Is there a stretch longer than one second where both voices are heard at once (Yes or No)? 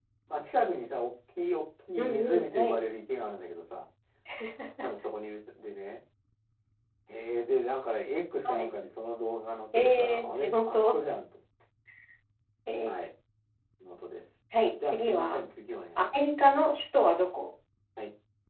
Yes